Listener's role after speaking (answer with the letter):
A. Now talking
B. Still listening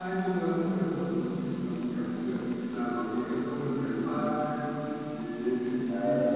B